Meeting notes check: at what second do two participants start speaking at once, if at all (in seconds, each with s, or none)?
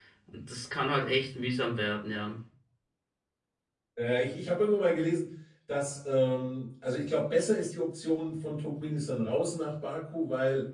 none